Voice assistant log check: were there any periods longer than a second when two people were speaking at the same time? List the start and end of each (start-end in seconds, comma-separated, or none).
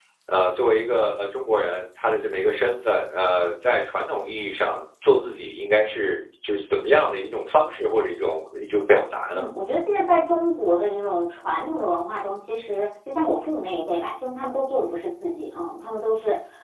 none